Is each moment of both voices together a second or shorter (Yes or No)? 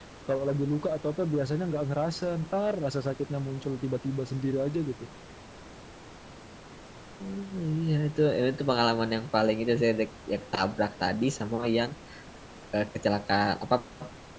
Yes